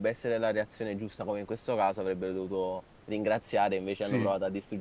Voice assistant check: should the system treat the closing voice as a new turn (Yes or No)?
No